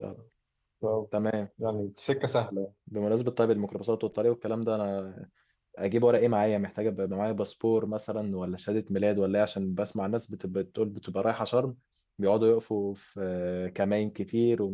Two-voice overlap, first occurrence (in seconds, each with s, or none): none